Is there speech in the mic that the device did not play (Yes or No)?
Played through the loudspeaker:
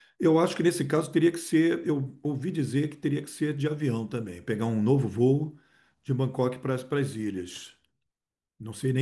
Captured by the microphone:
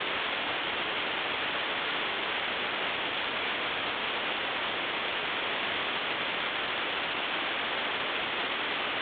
No